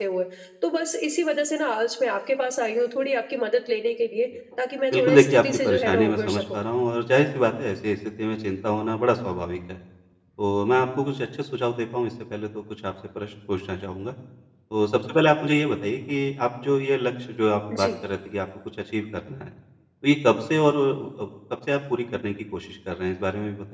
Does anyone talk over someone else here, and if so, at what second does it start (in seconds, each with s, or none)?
4.9 s